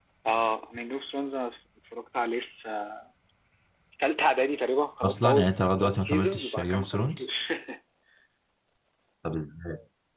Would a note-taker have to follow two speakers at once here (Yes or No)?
Yes